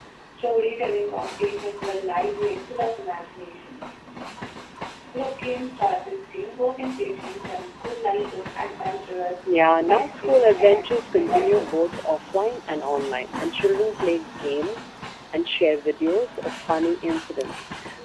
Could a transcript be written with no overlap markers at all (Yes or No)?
No